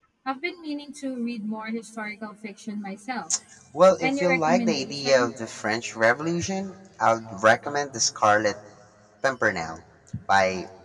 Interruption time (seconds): 4.0 s

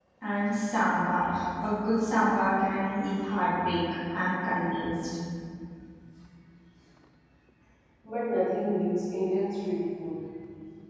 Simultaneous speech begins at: none

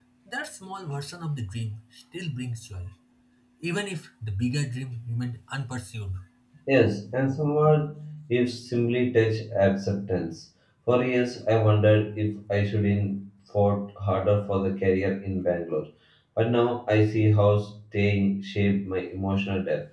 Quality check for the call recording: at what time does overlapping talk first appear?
none

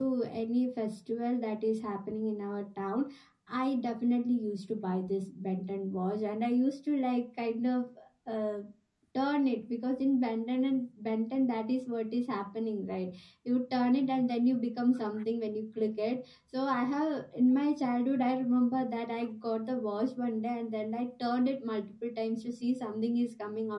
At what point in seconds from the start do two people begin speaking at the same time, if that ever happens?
none

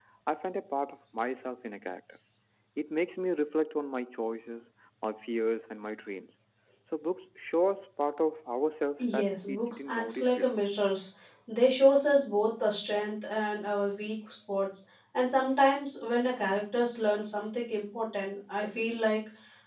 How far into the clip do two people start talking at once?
9.0 s

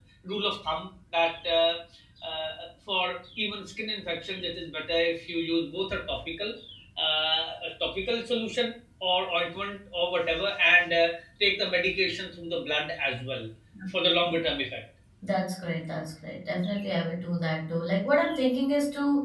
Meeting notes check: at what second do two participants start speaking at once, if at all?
none

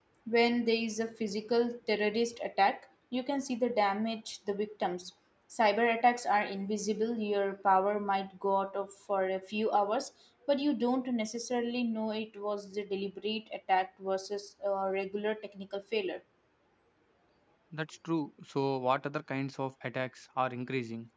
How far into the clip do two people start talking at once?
none

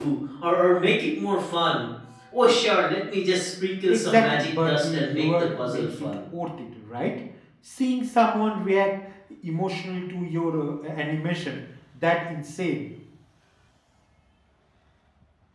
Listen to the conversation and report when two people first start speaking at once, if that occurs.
3.9 s

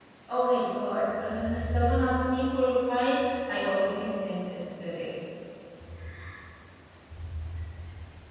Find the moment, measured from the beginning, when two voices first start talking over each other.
none

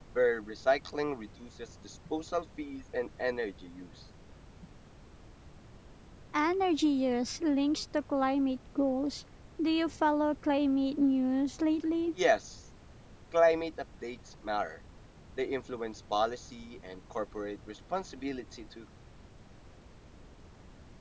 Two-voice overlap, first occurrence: none

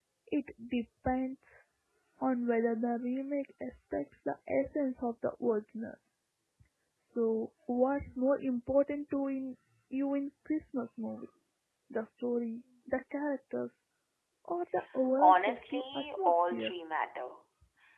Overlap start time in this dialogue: 15.2 s

